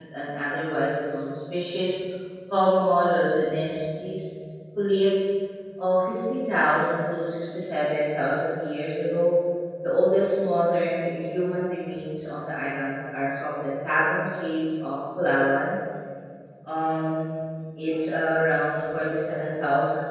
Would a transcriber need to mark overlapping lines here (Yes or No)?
No